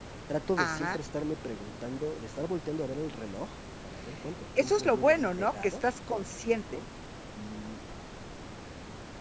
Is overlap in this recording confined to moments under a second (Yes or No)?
No